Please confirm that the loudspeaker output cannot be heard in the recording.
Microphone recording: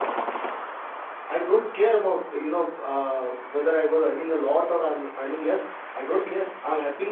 Yes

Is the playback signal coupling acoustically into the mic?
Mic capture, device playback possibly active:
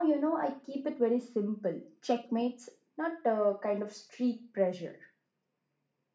Yes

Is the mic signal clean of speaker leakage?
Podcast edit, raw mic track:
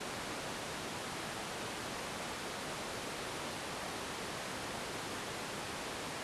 Yes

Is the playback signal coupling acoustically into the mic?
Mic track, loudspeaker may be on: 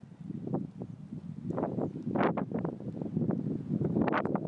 No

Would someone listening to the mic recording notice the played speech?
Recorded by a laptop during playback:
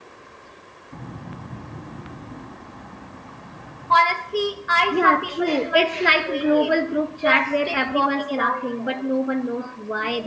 Yes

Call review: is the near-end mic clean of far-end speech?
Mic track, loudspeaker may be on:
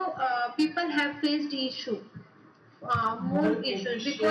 No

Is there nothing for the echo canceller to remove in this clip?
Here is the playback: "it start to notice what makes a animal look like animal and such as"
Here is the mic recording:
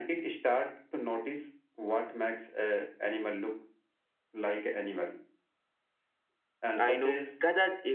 No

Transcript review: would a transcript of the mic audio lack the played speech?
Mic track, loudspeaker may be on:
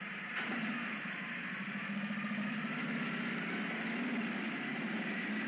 Yes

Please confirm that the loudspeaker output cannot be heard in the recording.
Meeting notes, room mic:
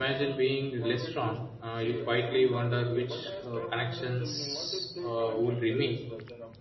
No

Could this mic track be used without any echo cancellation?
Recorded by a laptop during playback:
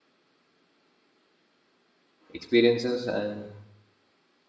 Yes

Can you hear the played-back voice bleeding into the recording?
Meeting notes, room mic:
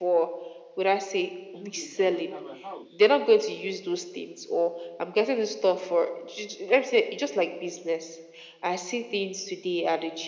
Yes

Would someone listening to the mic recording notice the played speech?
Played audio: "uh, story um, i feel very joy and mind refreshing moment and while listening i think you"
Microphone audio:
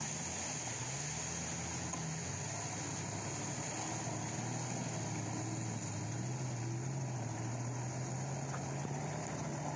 No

